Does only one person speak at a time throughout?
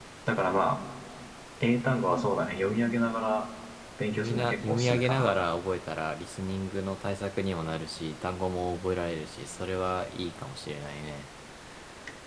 No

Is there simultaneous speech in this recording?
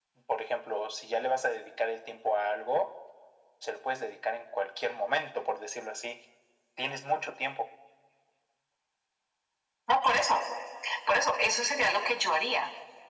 No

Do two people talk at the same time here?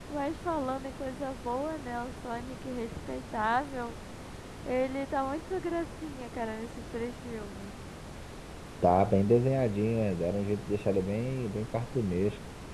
No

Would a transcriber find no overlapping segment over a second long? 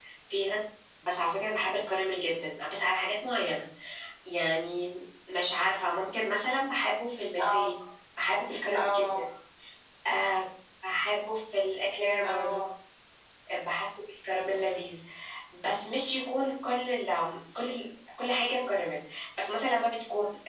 Yes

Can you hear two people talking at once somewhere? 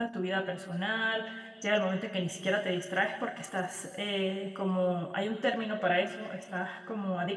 No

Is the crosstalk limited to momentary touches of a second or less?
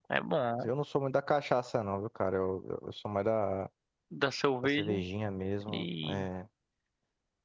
Yes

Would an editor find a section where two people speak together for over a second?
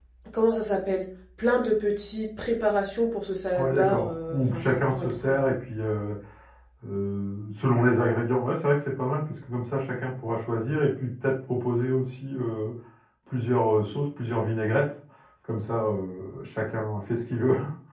Yes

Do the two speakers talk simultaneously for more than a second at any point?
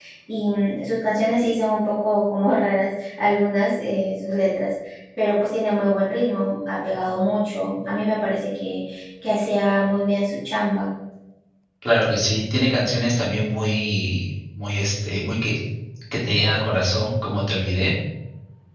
No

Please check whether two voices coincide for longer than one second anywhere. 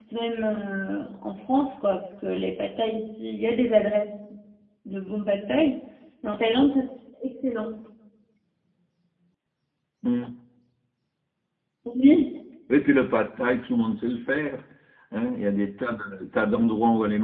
No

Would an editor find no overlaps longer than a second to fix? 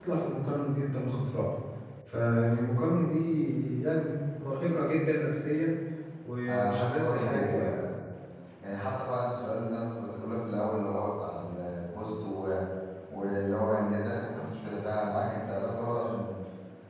No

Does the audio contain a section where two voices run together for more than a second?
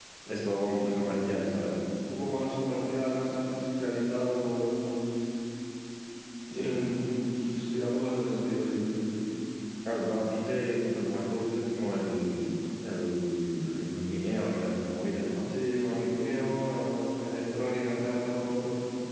No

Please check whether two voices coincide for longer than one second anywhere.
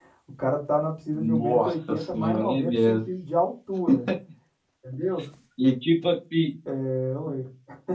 Yes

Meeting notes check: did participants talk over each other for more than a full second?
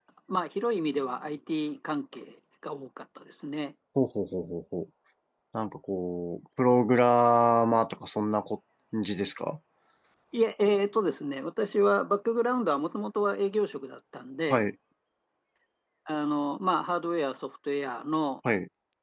No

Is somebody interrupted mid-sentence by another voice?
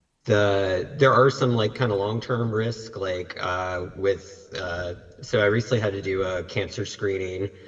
No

